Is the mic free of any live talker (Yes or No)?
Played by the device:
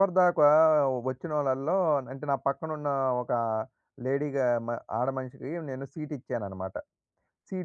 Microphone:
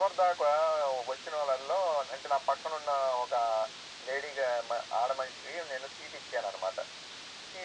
Yes